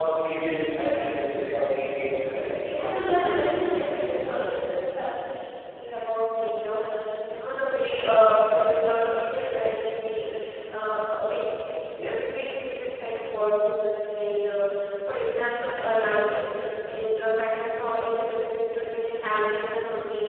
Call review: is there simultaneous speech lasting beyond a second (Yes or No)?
Yes